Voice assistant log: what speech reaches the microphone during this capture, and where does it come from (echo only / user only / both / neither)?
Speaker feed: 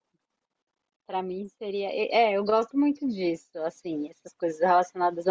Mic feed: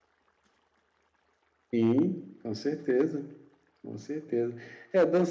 user only